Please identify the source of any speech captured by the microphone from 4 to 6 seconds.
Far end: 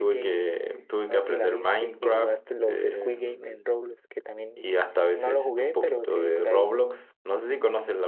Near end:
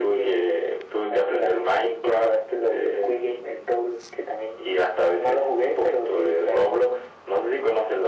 echo only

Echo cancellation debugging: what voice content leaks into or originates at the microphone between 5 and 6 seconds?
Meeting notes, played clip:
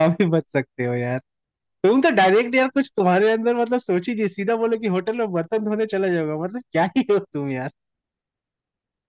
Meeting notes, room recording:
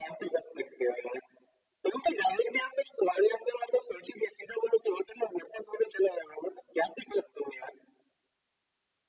echo only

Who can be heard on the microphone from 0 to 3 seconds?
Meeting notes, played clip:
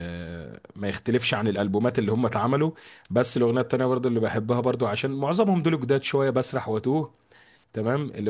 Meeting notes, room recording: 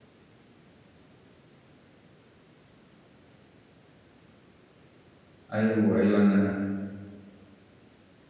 neither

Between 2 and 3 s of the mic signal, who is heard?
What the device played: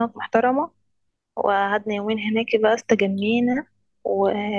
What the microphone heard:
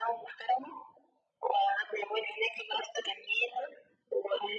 echo only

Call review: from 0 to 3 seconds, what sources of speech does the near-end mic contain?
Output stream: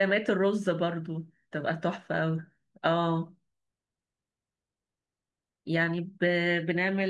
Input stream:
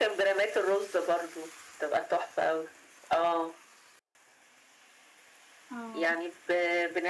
echo only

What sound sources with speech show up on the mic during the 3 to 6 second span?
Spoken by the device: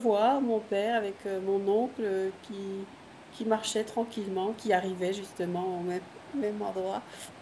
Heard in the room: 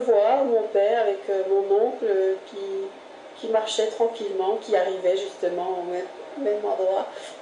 echo only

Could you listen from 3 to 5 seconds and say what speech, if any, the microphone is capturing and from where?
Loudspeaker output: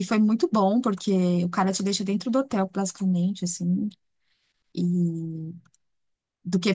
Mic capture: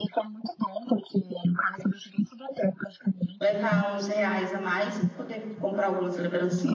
both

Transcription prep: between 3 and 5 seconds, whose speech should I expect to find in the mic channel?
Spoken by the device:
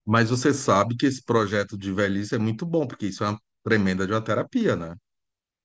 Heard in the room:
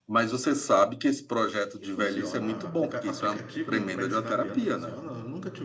both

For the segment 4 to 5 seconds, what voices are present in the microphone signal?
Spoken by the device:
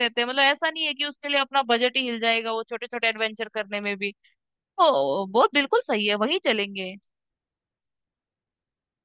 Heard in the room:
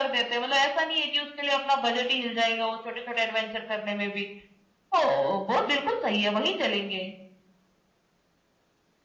echo only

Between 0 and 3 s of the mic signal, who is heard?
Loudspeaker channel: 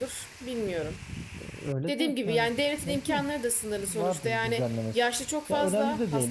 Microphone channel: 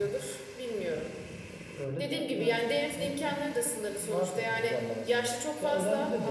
echo only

